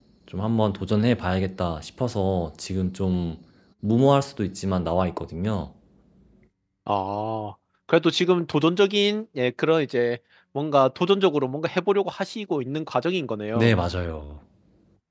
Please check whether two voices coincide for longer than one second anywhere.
No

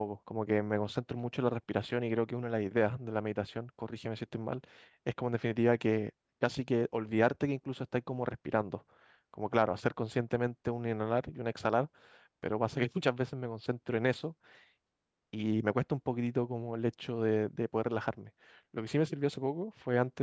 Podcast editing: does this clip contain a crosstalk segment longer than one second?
No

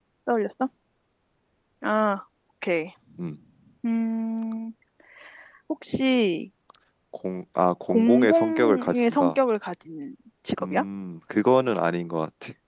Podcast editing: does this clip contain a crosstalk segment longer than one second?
Yes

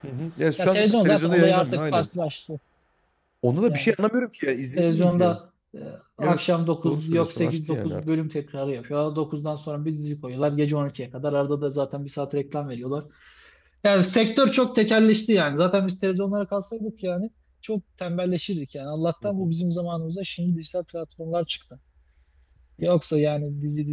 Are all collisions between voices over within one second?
No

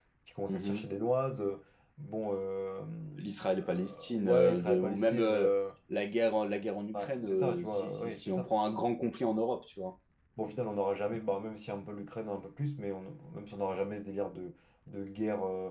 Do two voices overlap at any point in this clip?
Yes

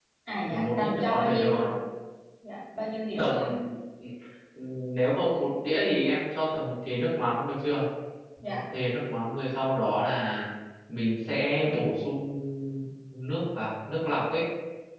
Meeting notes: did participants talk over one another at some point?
Yes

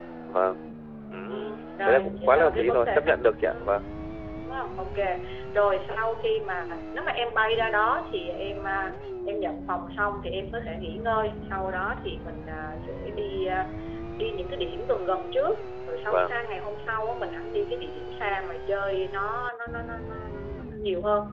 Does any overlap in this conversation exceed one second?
Yes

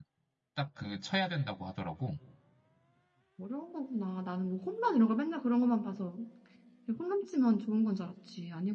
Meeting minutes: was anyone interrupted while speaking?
No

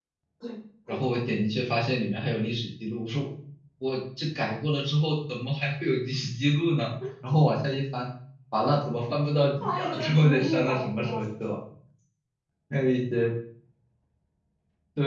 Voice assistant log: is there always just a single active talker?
No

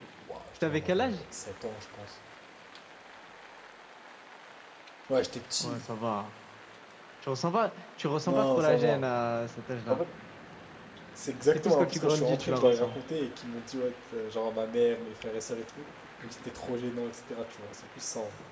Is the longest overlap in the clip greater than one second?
Yes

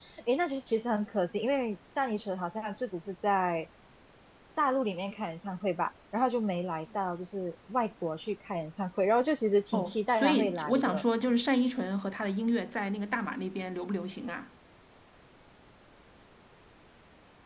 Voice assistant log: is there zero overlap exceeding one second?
No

